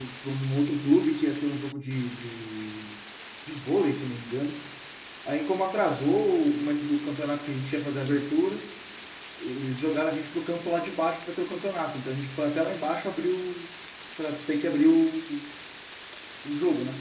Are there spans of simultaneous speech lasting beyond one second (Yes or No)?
No